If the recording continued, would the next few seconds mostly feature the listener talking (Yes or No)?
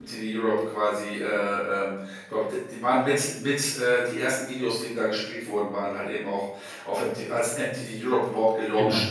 Yes